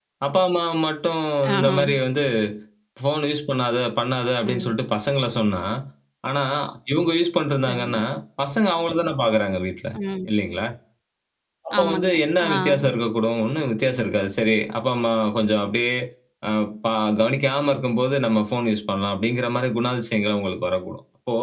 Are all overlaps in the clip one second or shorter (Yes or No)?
Yes